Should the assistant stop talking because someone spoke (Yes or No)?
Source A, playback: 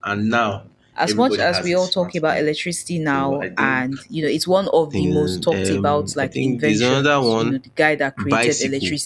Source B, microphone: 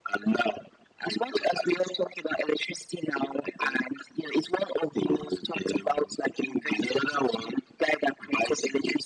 No